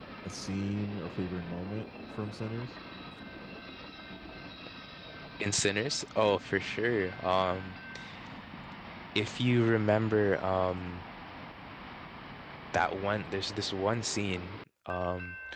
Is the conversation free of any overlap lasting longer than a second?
Yes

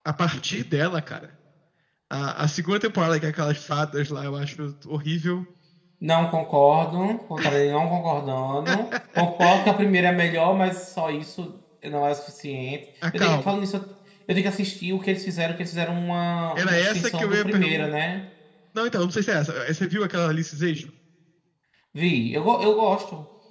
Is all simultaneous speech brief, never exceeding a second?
No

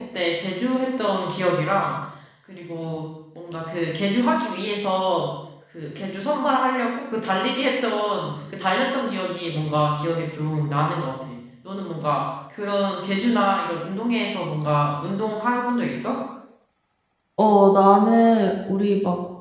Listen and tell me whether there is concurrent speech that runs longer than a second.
No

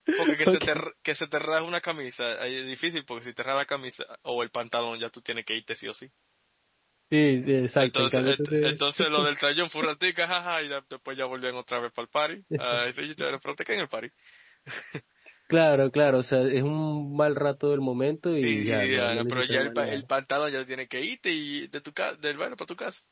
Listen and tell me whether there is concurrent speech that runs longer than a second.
Yes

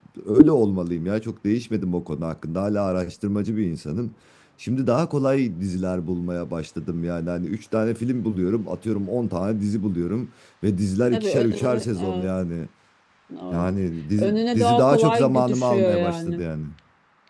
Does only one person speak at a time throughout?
No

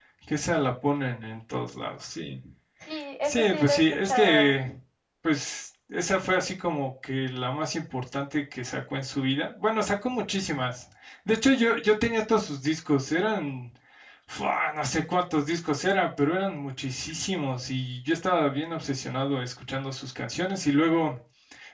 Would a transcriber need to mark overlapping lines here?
Yes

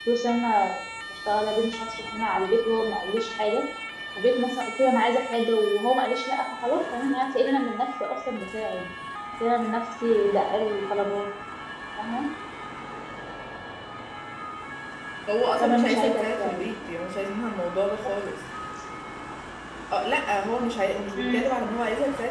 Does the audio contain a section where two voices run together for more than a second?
Yes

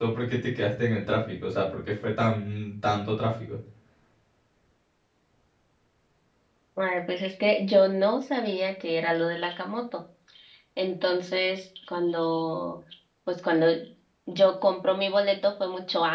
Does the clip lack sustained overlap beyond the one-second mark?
Yes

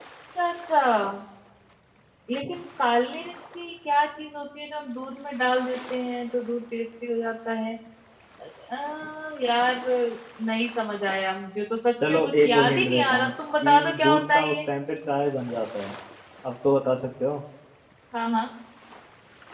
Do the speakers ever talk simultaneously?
Yes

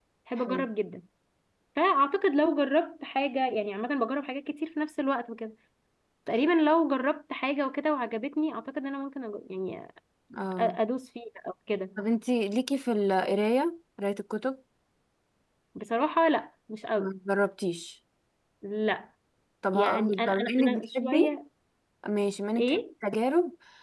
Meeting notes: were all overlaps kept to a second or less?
No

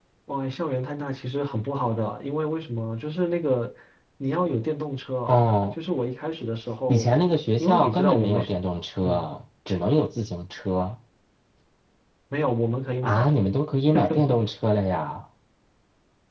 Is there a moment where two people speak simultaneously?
Yes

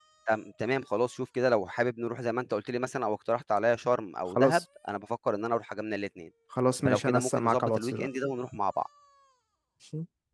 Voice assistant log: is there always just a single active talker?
No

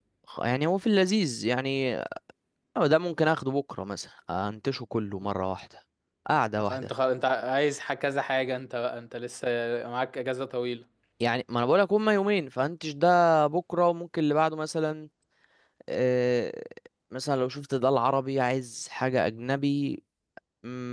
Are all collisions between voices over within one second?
Yes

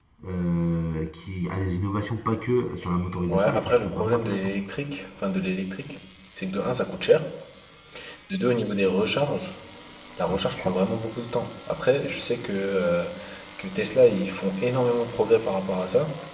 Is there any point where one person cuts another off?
Yes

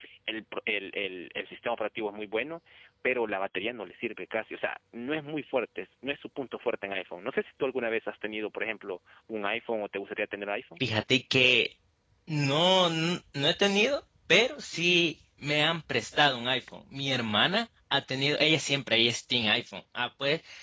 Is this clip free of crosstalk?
Yes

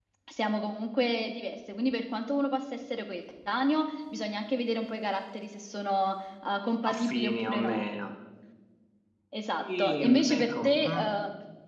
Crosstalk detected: Yes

